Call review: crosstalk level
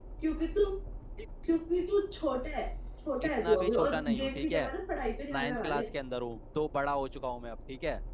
present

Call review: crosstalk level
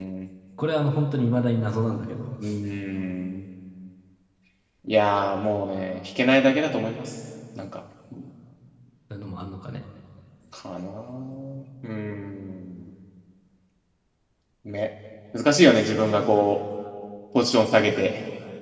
none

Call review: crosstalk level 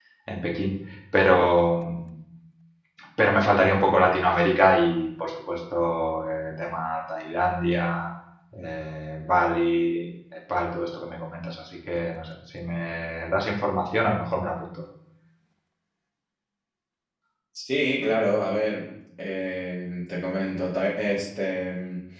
none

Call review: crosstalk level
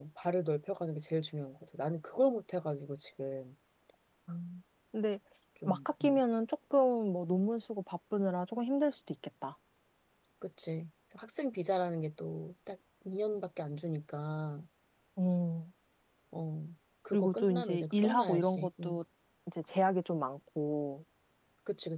present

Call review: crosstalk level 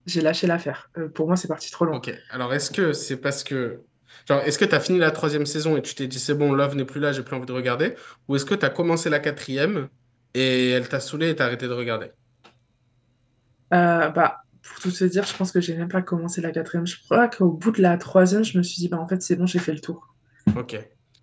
none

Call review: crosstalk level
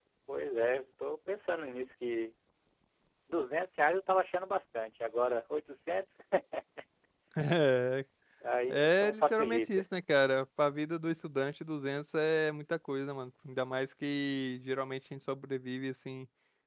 present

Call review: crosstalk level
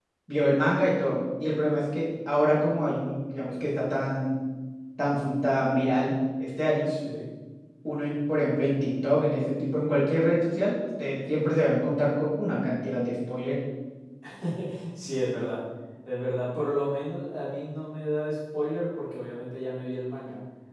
none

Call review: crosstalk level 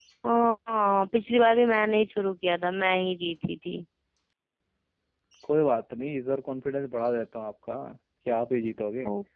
none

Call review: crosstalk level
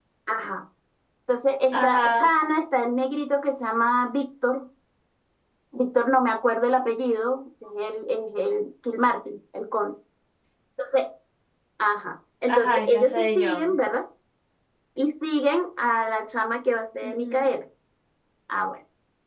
present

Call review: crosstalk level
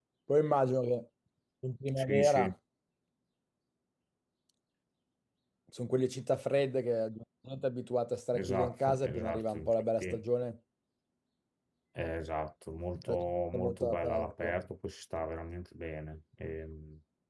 present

